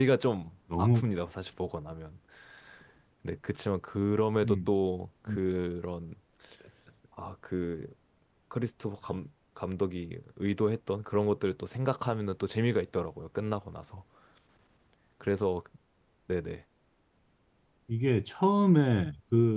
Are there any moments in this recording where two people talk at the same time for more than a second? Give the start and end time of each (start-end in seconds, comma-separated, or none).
none